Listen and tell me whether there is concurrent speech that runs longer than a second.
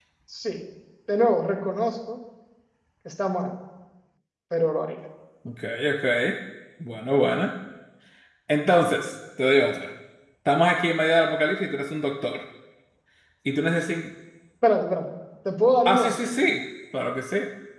No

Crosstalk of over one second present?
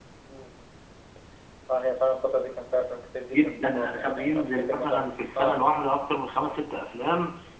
Yes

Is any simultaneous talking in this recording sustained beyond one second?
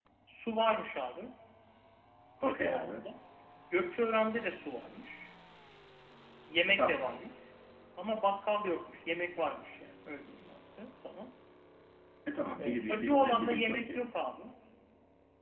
Yes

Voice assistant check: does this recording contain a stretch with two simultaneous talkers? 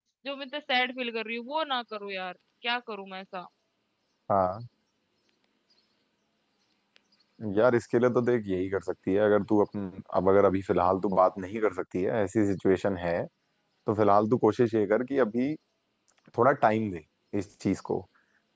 No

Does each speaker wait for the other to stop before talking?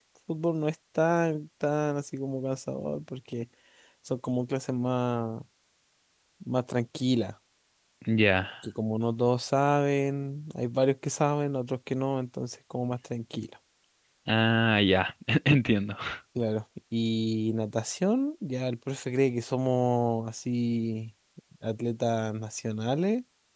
Yes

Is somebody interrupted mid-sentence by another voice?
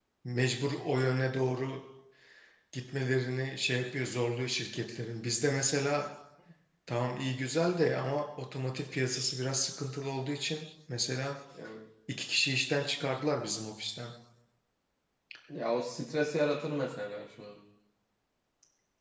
No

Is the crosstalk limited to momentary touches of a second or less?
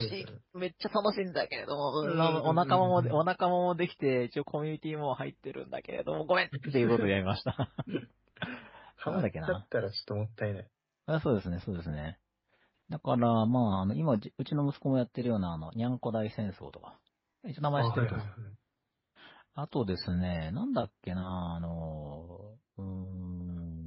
No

